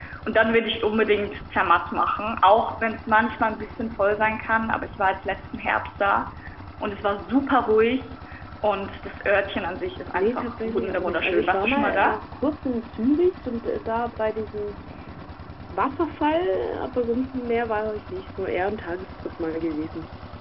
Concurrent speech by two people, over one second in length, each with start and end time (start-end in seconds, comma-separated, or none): 10.1-12.2